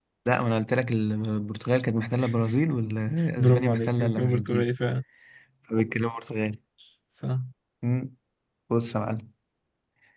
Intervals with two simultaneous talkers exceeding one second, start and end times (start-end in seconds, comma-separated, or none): 3.4-4.7